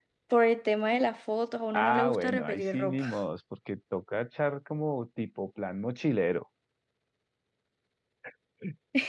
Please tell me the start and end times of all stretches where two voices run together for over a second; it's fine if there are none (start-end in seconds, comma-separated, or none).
1.7-3.0